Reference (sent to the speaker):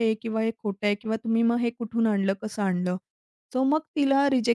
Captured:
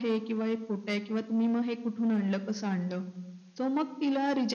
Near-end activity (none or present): none